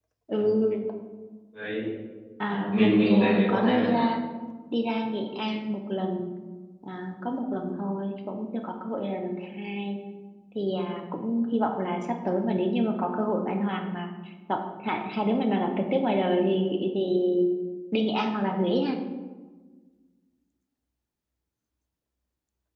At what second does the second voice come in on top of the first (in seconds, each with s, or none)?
2.4 s